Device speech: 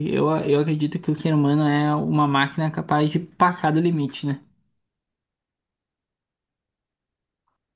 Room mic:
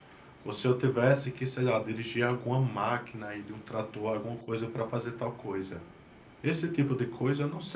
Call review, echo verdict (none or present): none